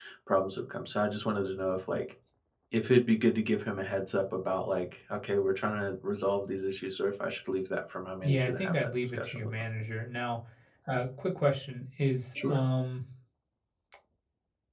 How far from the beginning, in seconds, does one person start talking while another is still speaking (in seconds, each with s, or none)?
8.2 s